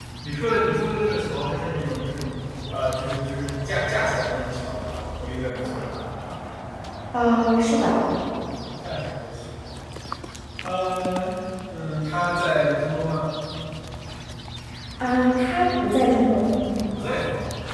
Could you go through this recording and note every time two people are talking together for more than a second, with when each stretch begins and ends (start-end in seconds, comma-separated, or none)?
none